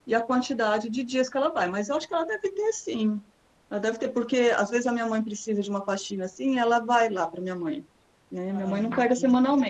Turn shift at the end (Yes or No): No